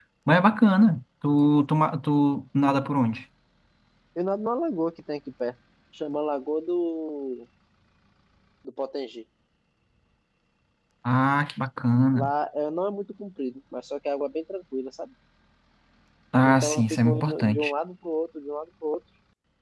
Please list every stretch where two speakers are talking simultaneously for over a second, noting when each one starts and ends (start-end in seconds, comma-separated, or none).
16.4-17.7